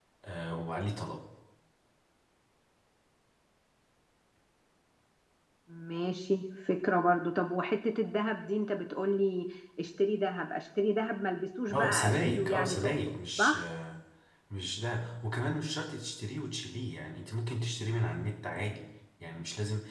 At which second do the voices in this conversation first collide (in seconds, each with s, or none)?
11.7 s